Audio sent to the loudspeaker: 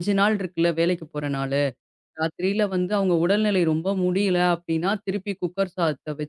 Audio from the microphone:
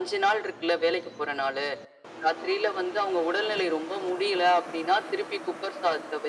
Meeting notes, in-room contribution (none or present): none